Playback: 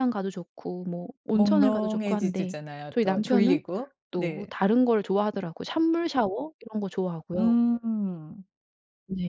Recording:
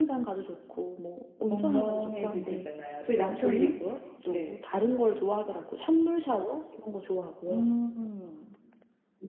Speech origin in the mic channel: echo only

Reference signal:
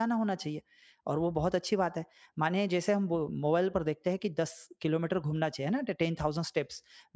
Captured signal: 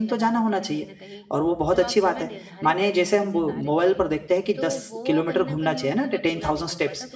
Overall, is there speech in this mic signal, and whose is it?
both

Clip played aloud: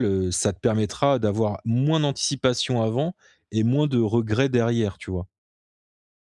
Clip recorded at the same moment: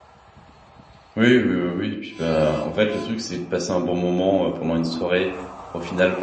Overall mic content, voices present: user only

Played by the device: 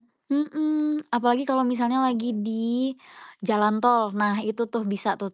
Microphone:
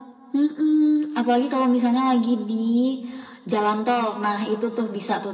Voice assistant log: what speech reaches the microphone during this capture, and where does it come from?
echo only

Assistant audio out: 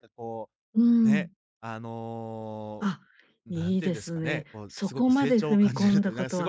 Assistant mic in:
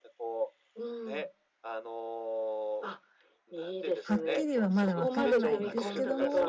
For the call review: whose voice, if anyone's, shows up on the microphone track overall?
both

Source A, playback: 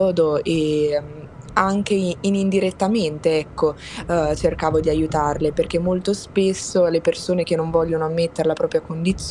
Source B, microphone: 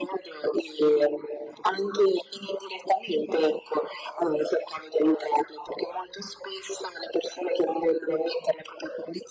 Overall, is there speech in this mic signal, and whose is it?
echo only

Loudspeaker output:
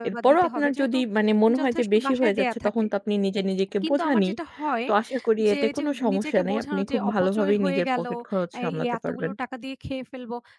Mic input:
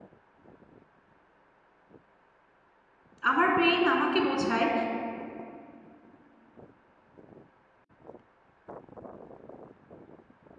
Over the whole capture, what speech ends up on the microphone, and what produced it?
user only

